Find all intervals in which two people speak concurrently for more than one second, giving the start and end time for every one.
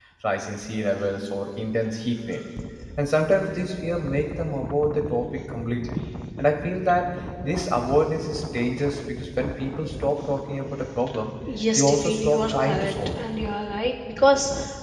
11.8-13.2

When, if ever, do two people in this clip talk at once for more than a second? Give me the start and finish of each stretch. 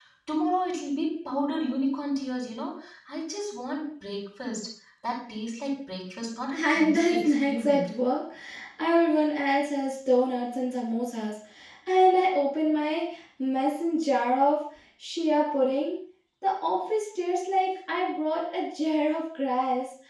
6.5-7.9

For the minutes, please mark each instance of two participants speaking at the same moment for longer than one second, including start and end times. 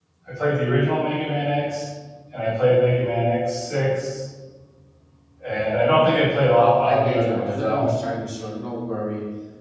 6.6-7.9

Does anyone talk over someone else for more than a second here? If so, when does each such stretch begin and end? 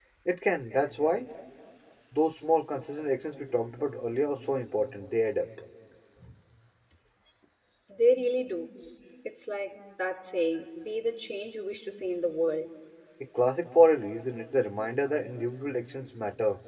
none

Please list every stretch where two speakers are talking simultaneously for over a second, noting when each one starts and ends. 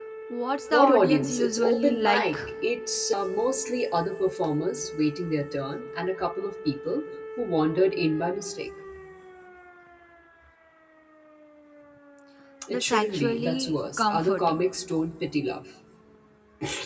0.7-2.4, 12.7-14.6

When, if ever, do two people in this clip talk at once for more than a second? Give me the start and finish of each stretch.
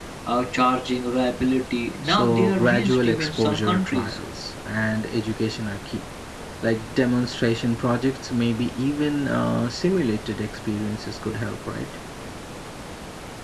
2.0-4.2

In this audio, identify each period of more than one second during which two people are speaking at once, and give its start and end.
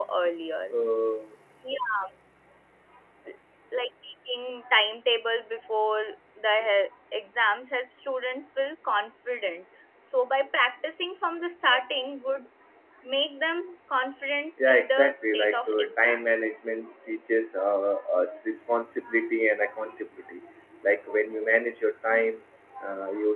14.7-16.2

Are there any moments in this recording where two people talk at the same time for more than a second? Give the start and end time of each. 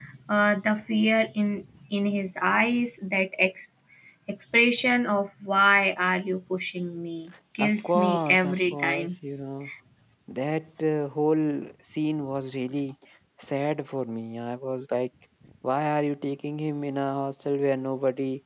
7.6-9.1

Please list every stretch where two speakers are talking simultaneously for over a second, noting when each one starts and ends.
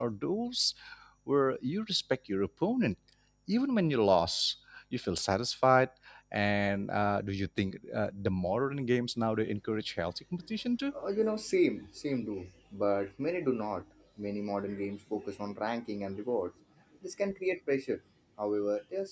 none

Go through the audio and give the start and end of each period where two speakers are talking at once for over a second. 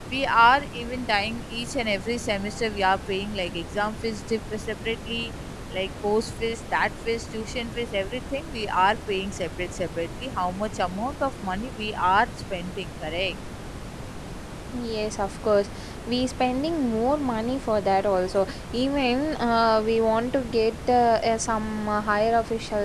none

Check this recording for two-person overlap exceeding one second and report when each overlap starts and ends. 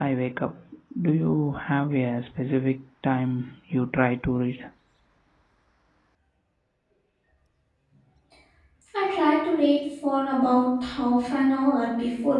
none

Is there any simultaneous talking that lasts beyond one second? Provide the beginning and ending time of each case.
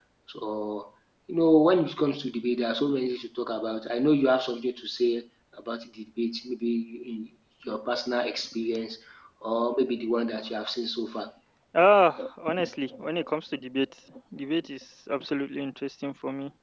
none

